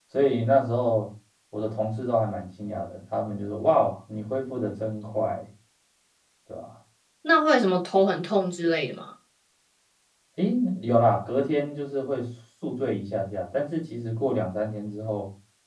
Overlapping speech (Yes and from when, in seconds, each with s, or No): No